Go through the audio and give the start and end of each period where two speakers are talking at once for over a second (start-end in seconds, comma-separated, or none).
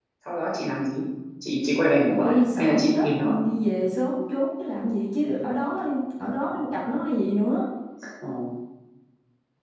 2.1-3.4